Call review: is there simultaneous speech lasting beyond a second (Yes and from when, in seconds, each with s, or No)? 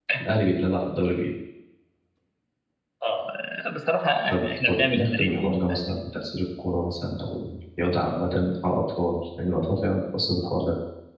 Yes, from 4.3 s